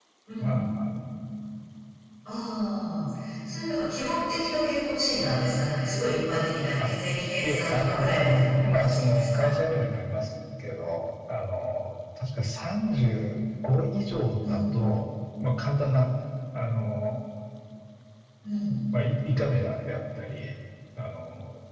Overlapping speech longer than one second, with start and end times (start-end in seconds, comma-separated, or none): 7.4-9.5